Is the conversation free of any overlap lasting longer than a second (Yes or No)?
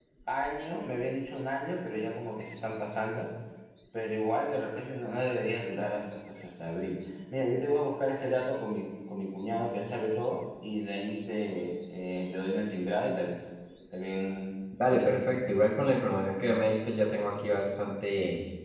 Yes